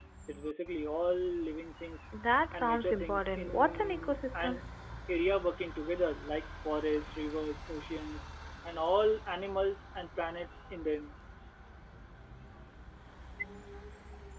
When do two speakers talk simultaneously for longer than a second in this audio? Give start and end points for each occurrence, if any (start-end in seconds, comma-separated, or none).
2.5-4.6